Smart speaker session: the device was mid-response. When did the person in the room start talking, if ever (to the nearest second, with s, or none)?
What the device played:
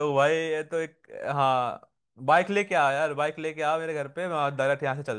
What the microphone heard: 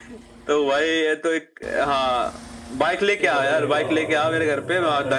3 s